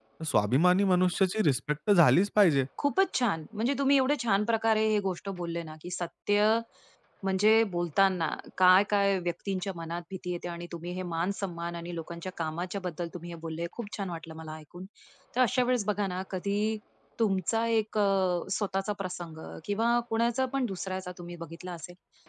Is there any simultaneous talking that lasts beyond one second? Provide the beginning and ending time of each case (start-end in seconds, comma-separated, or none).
none